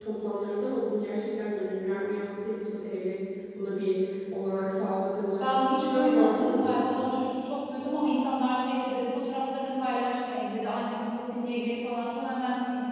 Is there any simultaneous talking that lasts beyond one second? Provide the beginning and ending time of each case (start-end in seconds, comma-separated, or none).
5.4-6.8